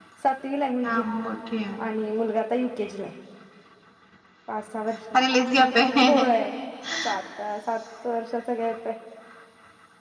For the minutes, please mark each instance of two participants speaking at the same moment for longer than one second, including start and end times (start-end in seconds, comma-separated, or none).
none